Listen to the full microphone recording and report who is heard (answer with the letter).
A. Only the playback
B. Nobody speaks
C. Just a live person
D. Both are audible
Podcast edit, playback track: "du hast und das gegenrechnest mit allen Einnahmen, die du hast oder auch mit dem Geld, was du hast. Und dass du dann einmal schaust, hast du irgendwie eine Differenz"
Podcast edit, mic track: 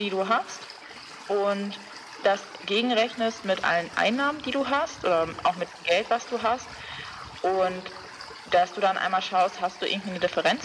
A